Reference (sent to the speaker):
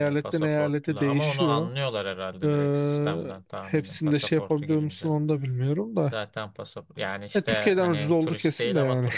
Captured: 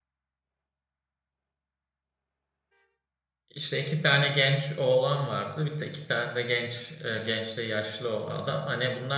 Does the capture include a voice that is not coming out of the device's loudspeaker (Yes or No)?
Yes